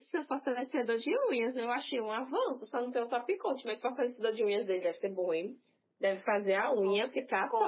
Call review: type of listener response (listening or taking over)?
taking over